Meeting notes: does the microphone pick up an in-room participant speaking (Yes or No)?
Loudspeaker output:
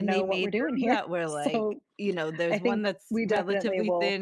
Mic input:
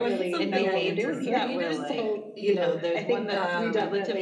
Yes